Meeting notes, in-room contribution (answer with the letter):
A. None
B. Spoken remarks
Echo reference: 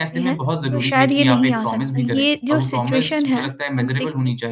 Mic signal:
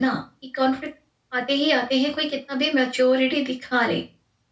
B